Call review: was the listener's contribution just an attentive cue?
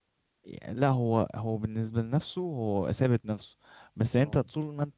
Yes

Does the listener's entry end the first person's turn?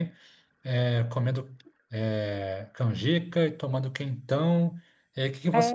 No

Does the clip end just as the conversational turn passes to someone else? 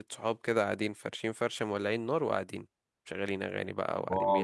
Yes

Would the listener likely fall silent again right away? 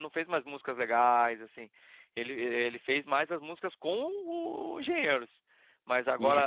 Yes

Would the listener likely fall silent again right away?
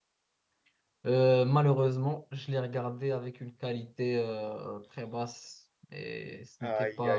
No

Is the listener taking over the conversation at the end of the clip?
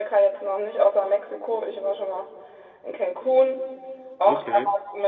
No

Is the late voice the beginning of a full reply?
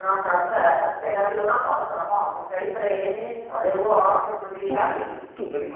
Yes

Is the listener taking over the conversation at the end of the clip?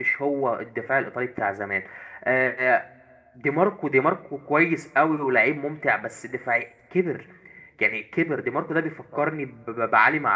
No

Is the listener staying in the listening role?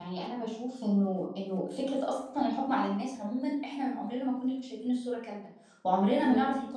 Yes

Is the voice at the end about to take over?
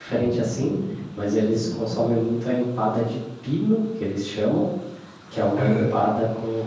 No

